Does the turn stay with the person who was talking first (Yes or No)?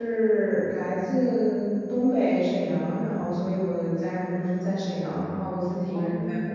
Yes